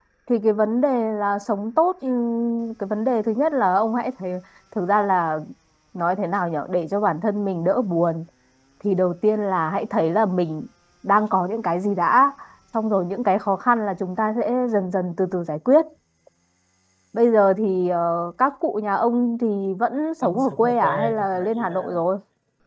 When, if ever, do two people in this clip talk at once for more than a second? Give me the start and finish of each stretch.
20.2-22.0

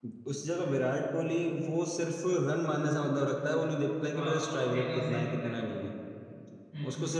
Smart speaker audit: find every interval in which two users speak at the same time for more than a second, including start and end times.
4.2-5.5

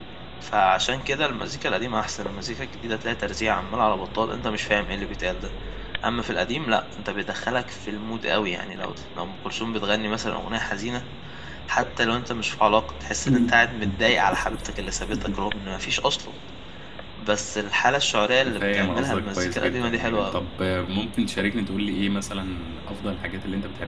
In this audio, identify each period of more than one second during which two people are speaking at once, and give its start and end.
18.6-20.4

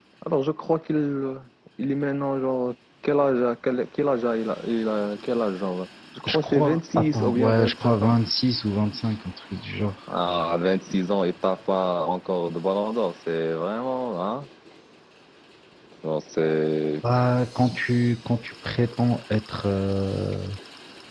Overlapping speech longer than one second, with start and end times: 6.3-8.2

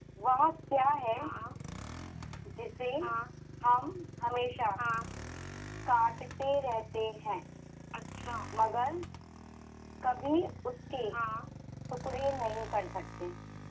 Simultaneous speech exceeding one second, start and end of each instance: none

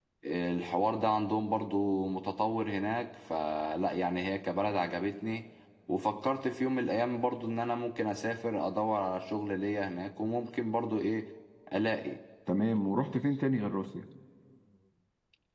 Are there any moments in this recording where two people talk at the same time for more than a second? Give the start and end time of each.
none

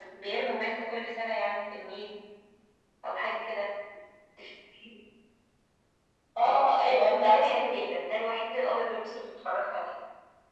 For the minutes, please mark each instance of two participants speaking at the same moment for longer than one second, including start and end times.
6.4-7.9

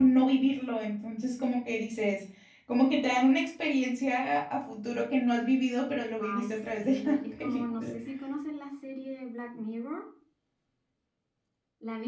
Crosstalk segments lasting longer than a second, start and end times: 6.2-7.9

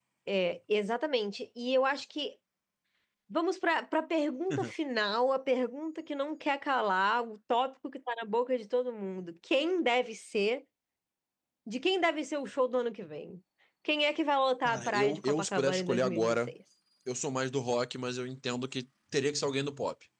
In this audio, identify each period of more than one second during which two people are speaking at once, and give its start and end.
14.7-16.5

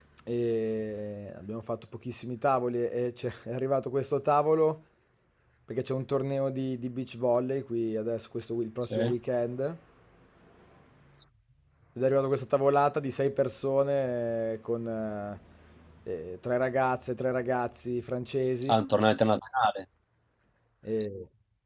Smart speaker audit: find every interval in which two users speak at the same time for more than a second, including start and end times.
none

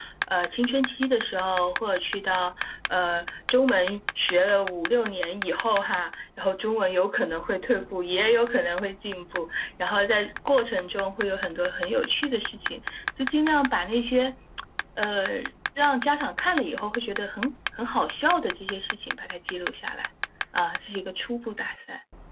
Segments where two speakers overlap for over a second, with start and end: none

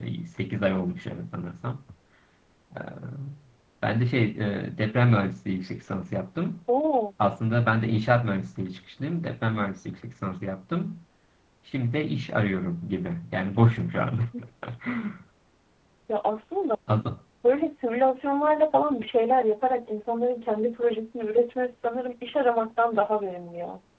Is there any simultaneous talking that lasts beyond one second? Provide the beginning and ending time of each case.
none

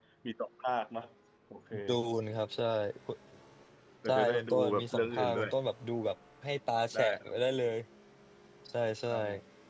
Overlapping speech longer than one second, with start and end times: 4.0-5.5

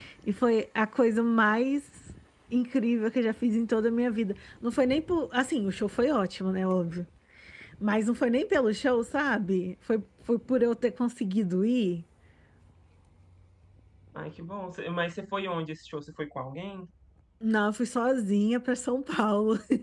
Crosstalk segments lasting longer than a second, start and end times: none

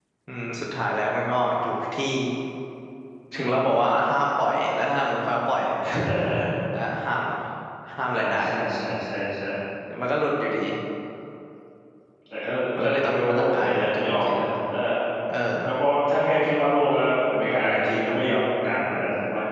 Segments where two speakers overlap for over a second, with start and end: 12.8-14.5

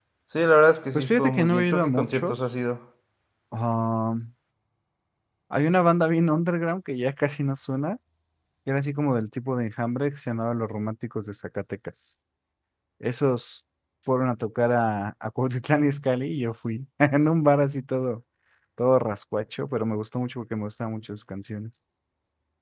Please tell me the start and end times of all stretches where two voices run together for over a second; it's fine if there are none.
0.9-2.4

